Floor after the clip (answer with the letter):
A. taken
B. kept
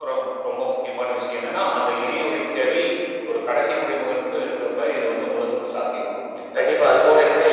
A